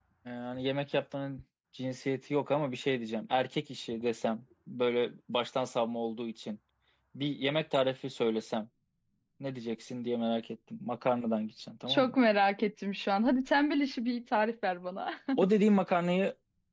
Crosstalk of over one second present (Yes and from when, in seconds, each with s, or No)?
No